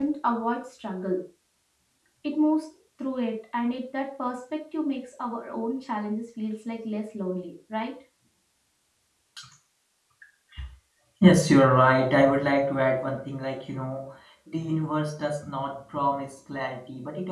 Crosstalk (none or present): none